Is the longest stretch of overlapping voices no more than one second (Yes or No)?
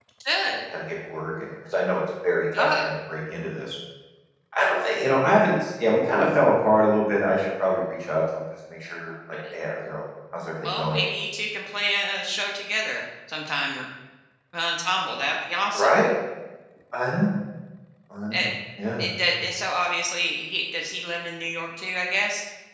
Yes